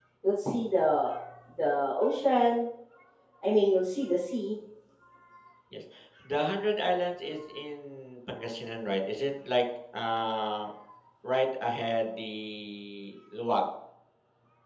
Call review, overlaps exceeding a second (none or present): none